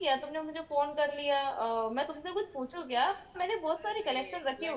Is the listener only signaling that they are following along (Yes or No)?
No